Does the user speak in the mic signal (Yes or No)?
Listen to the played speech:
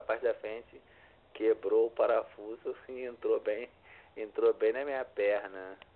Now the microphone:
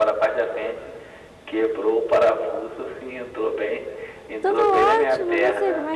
Yes